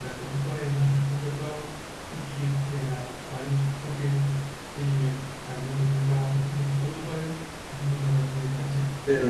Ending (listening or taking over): taking over